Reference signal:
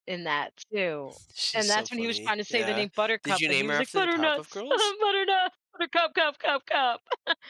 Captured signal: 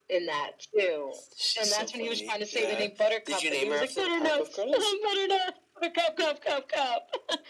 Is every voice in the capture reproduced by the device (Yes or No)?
Yes